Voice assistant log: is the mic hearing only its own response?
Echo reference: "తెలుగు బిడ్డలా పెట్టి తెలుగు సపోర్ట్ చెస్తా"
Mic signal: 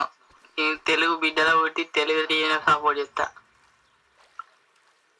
Yes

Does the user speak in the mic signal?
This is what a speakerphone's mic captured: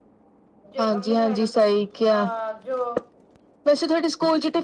Yes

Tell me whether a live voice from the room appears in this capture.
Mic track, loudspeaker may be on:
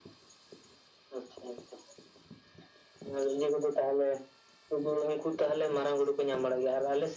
No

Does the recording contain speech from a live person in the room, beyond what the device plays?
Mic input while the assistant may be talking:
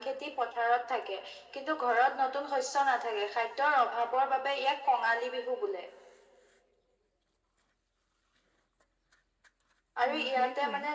Yes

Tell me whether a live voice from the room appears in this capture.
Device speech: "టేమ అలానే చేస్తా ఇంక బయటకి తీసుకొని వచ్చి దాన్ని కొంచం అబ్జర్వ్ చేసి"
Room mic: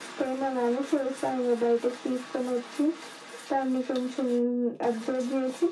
No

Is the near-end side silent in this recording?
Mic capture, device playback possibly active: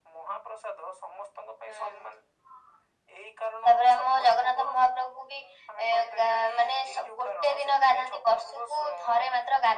Yes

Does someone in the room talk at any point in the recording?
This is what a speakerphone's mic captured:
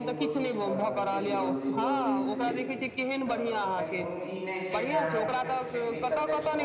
Yes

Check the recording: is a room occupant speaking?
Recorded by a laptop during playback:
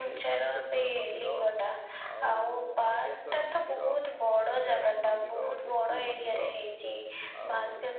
Yes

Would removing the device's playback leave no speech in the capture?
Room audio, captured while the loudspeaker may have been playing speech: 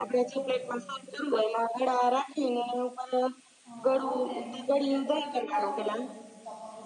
No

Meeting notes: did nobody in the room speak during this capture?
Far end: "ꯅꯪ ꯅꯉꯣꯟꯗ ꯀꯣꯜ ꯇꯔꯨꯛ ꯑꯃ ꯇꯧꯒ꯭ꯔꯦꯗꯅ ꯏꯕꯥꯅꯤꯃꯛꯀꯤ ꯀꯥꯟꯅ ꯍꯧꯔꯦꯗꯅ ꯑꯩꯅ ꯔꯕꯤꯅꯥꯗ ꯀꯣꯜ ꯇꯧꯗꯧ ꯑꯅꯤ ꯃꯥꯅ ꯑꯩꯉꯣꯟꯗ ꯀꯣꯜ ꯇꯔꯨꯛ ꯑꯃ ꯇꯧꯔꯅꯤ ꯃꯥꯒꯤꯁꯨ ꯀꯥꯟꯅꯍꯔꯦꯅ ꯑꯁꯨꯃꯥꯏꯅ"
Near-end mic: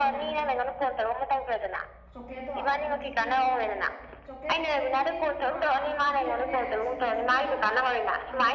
No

